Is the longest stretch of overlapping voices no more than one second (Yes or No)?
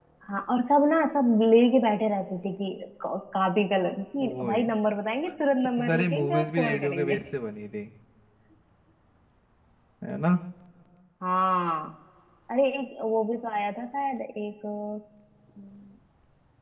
No